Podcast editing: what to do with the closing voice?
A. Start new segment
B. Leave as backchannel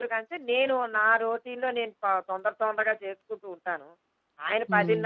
B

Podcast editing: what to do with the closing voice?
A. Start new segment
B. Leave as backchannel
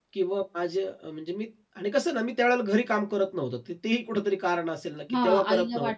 A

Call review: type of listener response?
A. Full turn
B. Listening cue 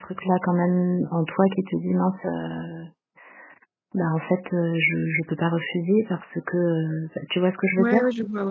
A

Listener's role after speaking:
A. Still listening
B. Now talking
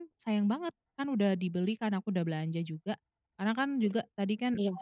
A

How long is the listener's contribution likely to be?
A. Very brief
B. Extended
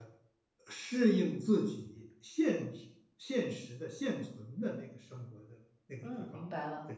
B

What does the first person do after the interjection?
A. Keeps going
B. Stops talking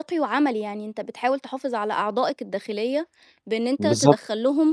A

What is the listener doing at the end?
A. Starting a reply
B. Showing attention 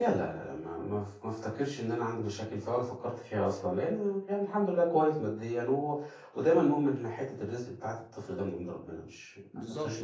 A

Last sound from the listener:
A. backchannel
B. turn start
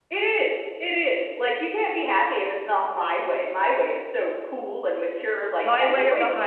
B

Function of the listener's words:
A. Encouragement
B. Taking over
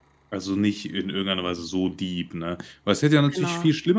A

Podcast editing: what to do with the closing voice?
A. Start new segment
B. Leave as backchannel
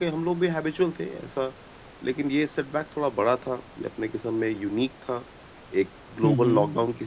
B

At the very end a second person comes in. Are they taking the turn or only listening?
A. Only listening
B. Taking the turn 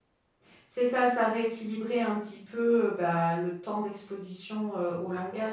A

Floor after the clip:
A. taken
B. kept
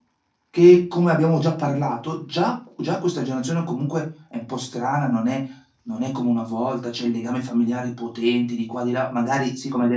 B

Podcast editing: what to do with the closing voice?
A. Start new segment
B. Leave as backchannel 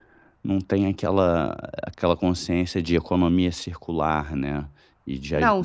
A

